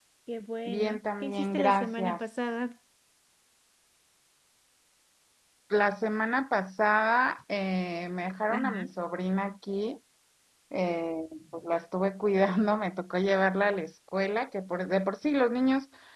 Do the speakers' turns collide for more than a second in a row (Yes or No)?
Yes